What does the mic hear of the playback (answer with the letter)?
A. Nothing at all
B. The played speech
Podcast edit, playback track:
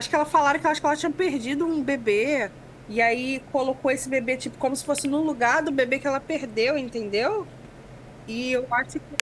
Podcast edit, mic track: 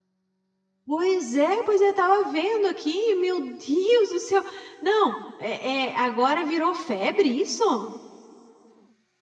A